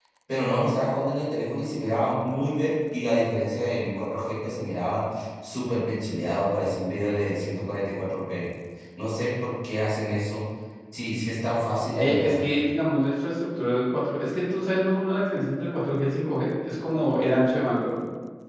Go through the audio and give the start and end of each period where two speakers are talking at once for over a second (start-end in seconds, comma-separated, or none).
none